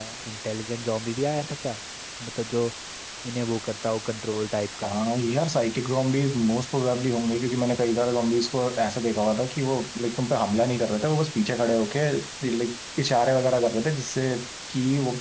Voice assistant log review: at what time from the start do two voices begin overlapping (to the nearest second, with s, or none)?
none